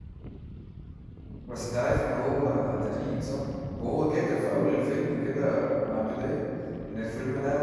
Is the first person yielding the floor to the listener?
No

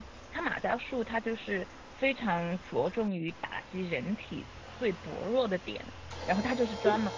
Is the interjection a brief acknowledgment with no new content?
Yes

